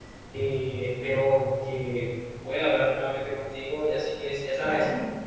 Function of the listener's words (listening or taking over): listening